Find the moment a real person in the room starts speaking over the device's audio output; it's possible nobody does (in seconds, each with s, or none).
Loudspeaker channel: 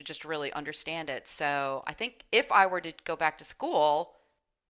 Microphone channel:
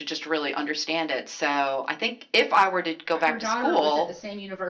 3.1 s